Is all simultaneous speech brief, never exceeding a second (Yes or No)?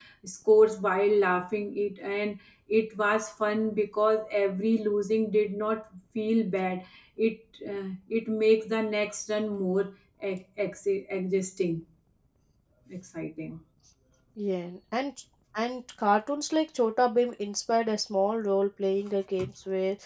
Yes